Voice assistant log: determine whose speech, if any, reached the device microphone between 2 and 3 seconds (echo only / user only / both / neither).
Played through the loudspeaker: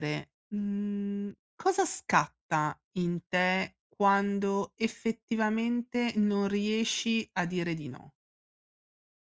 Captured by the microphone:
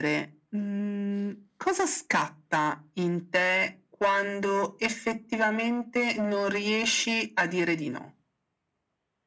echo only